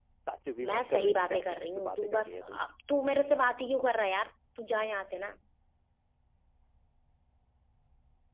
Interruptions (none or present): present